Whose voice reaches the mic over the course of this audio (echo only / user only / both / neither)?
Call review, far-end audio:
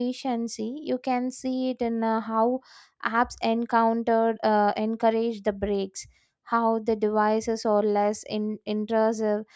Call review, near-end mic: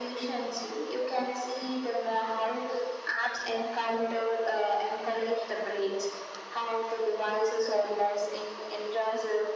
echo only